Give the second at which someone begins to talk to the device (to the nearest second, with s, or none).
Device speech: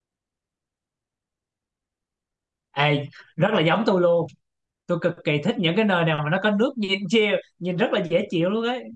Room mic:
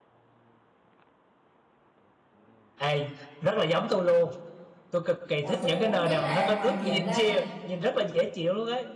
5 s